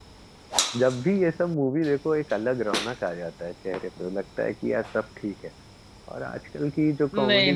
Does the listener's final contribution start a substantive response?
Yes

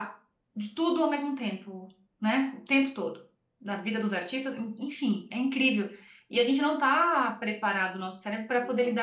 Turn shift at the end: No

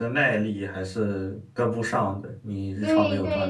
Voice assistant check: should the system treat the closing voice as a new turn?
Yes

